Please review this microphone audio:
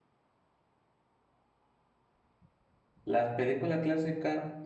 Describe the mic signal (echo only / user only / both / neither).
user only